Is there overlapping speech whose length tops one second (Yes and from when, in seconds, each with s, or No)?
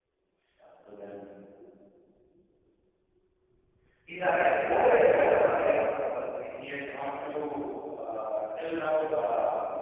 Yes, from 4.3 s